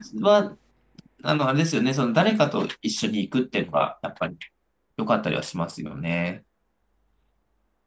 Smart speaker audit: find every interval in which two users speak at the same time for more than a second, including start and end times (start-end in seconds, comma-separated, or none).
none